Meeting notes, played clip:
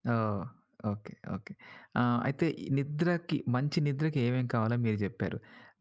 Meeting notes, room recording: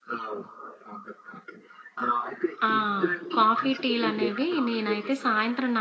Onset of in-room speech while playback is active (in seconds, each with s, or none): 2.7 s